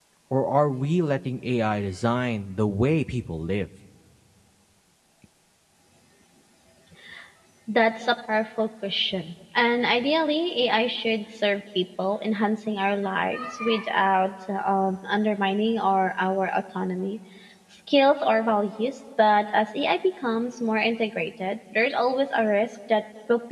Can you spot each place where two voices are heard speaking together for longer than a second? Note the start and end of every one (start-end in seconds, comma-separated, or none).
none